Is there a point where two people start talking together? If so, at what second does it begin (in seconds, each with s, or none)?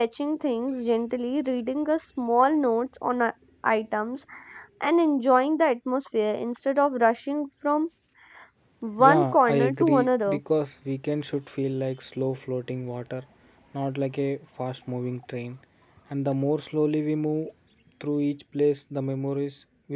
9.0 s